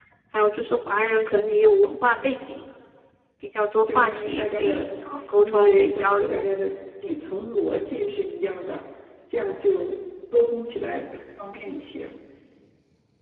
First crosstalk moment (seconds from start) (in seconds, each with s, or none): 3.9 s